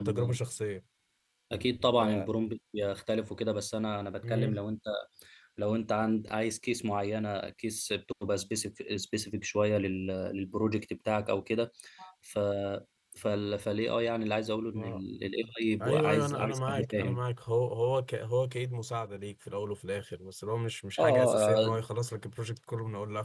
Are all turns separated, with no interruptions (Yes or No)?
No